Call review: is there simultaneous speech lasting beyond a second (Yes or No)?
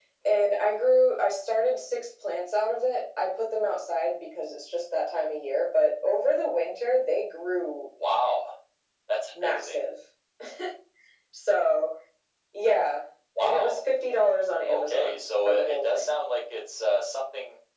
Yes